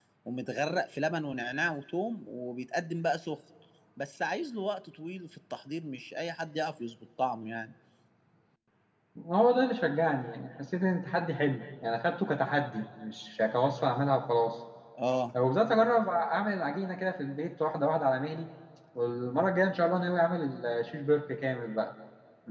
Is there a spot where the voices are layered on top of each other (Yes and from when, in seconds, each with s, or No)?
No